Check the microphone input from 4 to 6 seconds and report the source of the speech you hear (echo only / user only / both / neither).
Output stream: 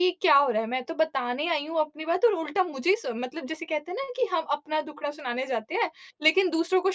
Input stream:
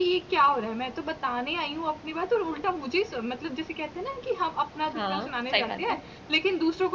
both